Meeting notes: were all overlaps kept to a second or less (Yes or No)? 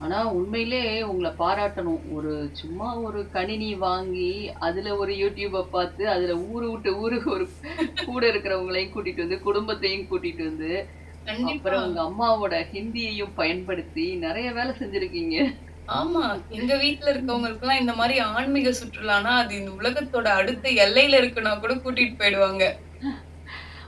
Yes